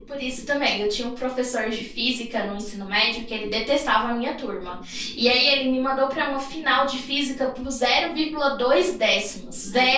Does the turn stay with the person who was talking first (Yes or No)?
Yes